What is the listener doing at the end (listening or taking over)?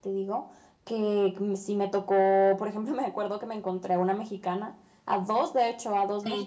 listening